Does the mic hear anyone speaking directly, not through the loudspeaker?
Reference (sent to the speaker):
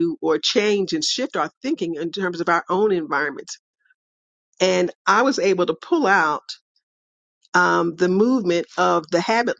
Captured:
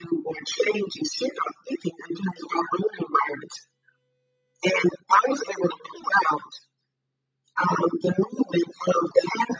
No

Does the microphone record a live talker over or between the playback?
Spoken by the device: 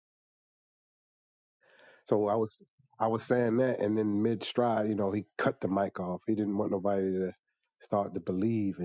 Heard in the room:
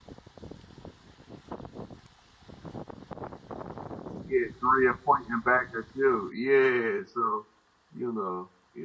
Yes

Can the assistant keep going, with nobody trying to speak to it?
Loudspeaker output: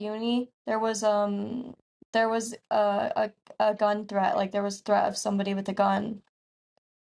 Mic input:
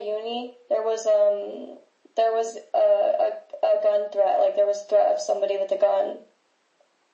Yes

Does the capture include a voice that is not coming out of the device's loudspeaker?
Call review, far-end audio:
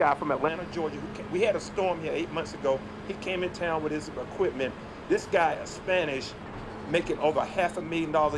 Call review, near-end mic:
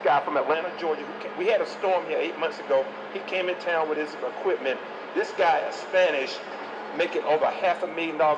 No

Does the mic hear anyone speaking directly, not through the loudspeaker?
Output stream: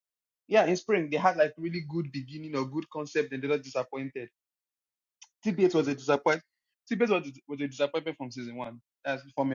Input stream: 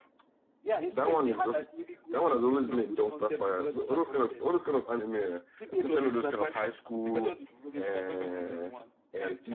Yes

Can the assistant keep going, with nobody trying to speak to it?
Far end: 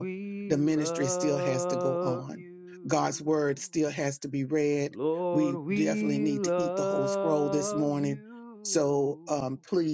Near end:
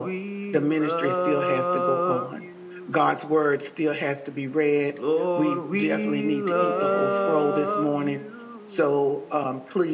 No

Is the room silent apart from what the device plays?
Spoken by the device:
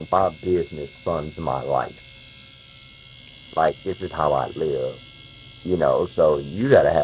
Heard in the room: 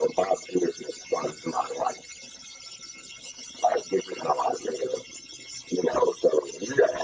Yes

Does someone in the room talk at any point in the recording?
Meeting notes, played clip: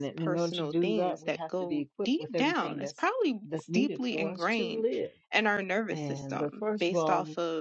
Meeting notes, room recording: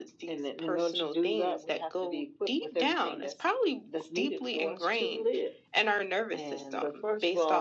No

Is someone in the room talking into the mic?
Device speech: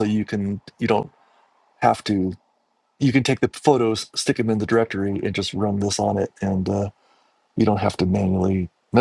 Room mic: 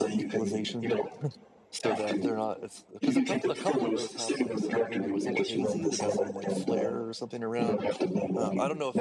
Yes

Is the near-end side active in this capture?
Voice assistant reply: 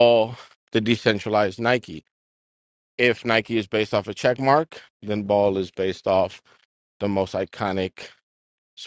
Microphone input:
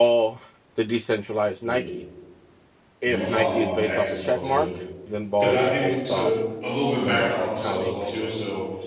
Yes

